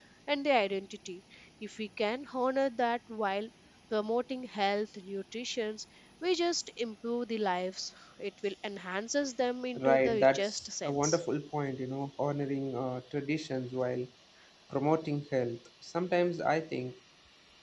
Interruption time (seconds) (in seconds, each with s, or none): 9.8 s